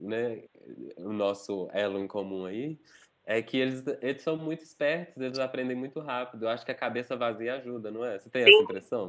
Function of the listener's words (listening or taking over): taking over